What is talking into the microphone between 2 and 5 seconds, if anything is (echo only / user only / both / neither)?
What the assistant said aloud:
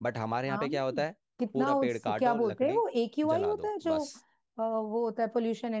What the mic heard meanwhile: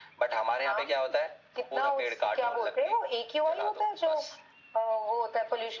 echo only